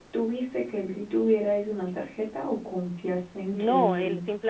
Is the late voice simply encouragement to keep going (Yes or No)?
No